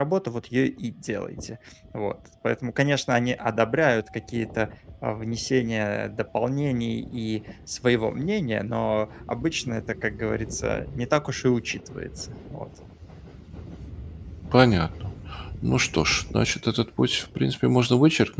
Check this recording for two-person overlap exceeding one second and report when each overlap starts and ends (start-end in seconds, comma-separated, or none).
none